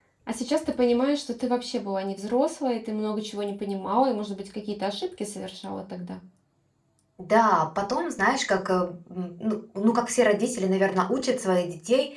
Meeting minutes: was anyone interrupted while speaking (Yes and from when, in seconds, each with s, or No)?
No